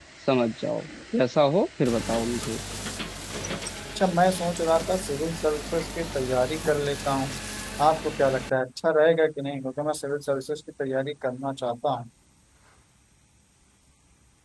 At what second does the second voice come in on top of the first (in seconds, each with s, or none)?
none